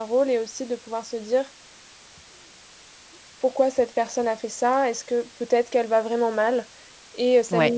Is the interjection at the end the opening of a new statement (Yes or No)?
No